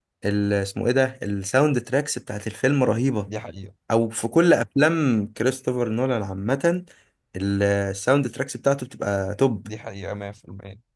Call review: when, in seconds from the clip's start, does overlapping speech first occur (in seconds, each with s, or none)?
none